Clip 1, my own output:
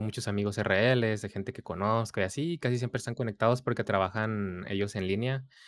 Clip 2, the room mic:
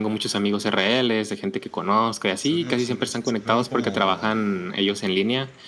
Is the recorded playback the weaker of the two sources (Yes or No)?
No